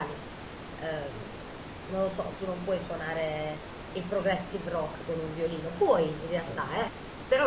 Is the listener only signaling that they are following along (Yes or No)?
Yes